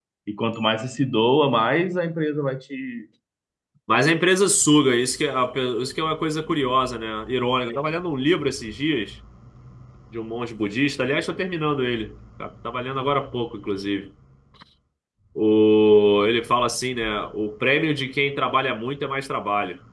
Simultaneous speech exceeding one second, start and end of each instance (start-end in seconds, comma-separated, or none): none